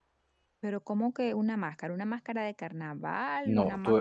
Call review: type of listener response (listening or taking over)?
taking over